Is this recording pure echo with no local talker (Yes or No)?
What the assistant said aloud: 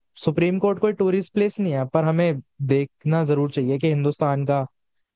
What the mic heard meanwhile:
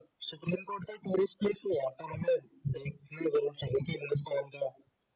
Yes